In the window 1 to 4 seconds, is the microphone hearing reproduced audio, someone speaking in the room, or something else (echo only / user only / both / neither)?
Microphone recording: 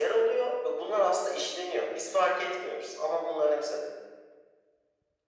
echo only